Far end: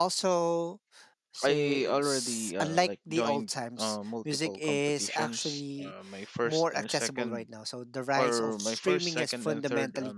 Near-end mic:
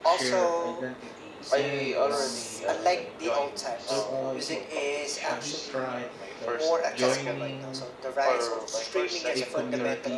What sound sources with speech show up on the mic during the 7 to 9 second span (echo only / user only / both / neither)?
both